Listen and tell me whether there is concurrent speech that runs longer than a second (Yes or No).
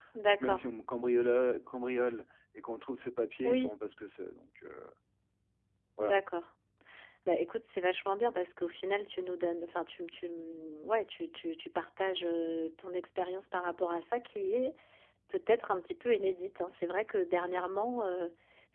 No